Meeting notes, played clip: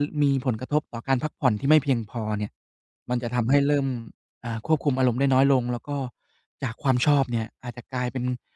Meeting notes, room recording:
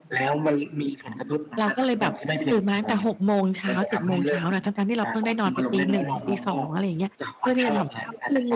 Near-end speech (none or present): present